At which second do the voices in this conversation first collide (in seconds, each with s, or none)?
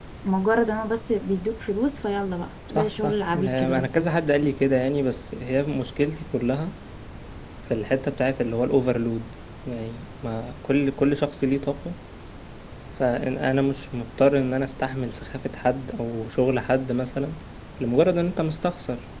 2.7 s